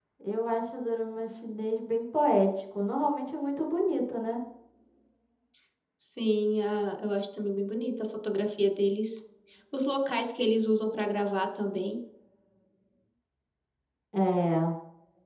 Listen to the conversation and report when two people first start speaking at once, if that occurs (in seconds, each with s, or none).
none